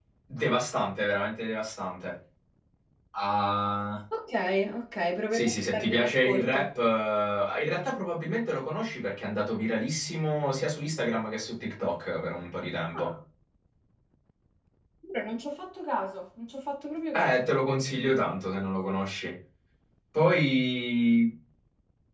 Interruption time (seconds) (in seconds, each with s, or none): 5.3 s